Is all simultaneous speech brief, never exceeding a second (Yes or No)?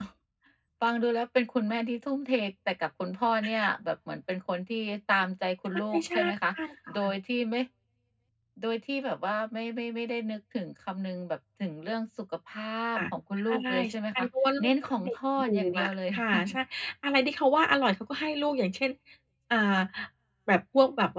No